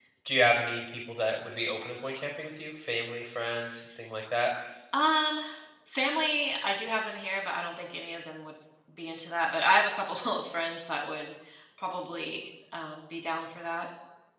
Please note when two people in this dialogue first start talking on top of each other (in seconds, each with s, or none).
none